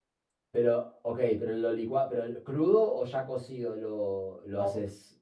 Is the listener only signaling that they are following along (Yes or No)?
No